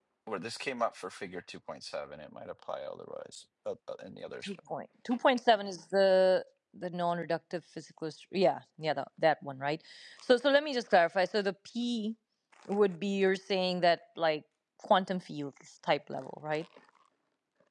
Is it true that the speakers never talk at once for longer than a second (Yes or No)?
Yes